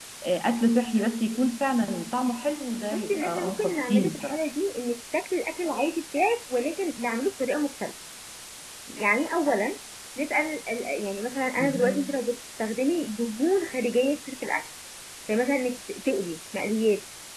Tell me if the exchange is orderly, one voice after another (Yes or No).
No